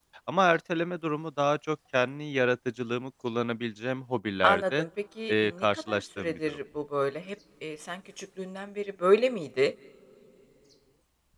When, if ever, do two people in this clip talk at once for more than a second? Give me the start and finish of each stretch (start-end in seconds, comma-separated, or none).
5.3-6.6